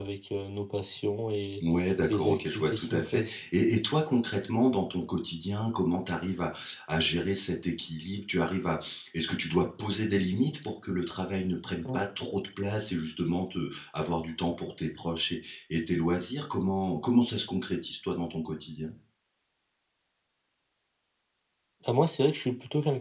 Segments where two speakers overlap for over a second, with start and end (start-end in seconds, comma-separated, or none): 2.1-3.3